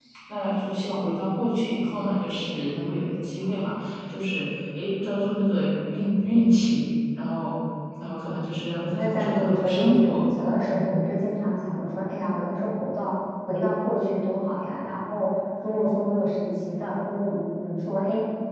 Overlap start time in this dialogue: 9 s

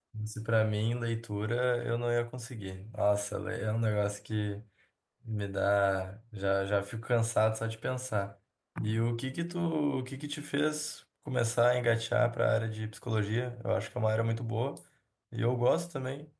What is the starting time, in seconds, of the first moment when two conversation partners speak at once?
none

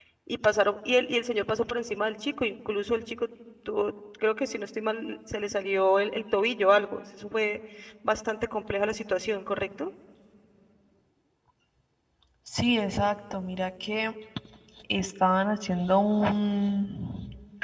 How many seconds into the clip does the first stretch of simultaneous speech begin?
none

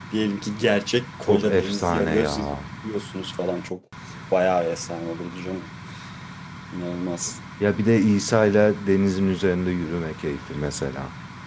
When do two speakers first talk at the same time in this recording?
1 s

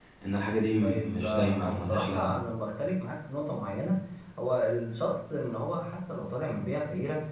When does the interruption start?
1 s

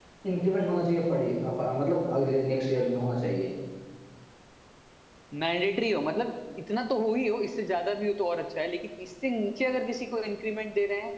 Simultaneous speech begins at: none

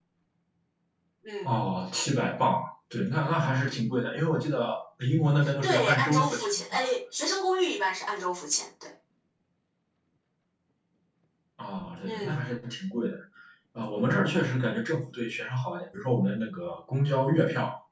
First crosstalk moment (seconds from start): 6 s

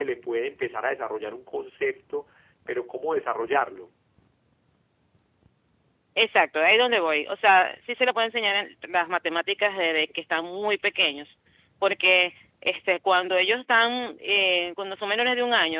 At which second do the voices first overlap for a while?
none

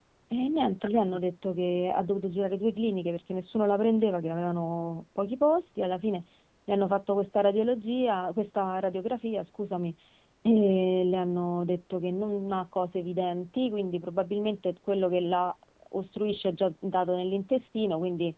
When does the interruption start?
none

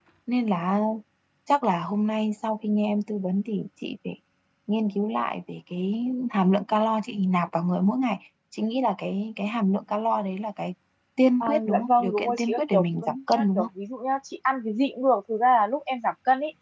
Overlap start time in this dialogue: 11 s

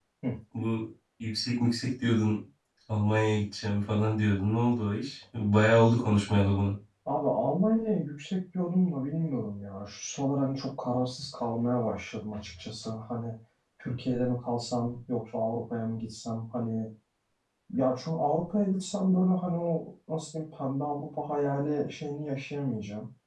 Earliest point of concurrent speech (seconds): none

